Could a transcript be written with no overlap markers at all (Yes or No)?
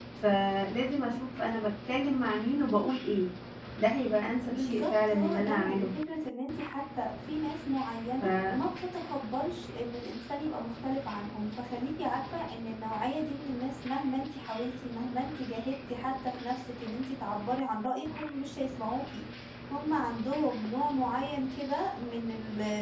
No